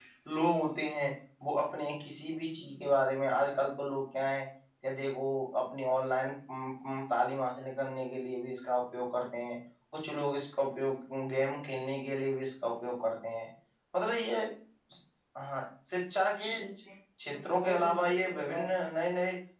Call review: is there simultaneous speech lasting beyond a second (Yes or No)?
Yes